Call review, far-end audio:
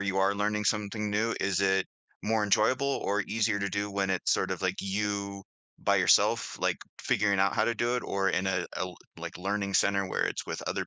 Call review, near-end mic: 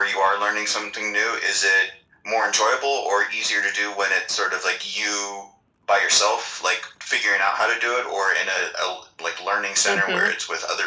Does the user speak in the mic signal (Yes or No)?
Yes